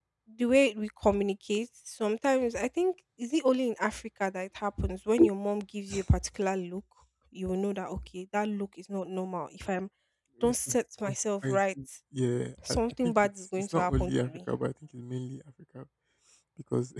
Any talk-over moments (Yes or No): Yes